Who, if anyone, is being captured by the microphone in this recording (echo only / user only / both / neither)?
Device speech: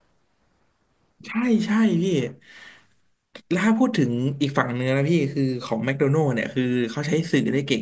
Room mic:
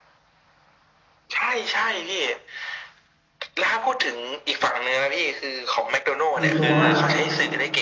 both